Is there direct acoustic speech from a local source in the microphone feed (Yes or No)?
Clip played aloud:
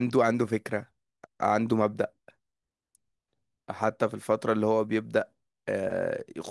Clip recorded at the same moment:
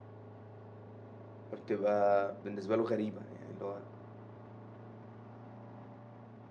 Yes